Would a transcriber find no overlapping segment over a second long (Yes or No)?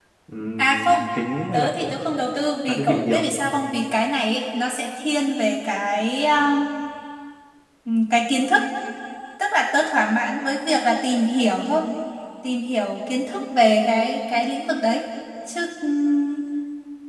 Yes